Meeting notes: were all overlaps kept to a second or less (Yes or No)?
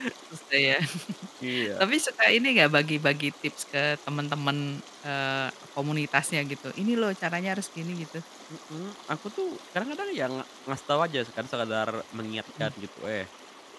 Yes